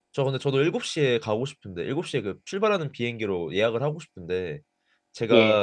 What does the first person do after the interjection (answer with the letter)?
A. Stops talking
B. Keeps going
B